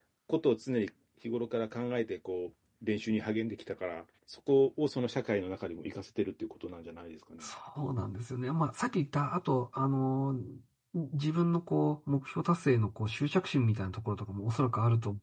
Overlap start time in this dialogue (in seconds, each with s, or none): none